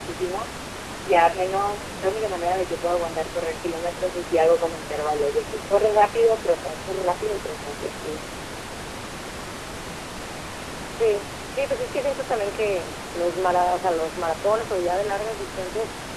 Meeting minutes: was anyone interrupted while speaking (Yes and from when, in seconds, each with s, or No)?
No